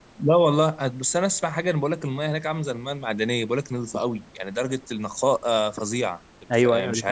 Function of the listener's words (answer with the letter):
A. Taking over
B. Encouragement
A